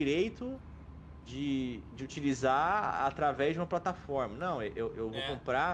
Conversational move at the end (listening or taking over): taking over